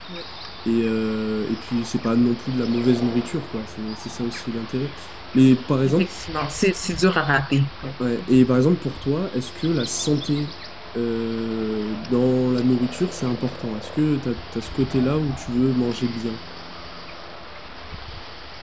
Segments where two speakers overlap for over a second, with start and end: none

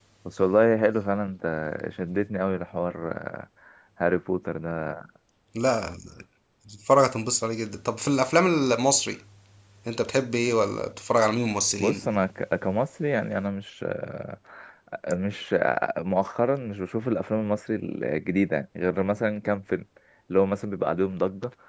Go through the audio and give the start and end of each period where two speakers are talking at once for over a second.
none

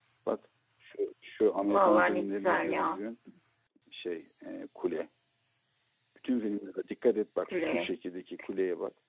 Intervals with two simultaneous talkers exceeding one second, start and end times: 1.7-3.0

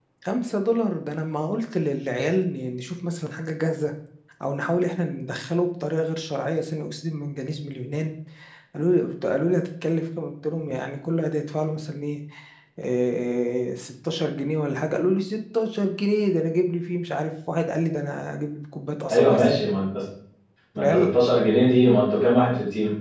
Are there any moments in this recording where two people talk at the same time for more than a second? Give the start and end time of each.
none

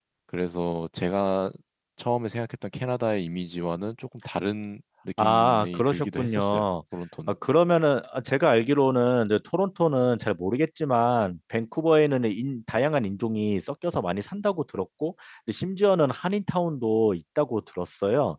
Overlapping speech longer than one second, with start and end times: 5.2-6.6

